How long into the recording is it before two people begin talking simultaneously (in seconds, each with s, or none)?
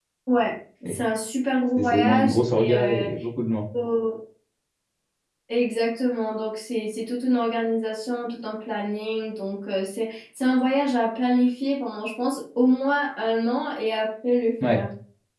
1.8 s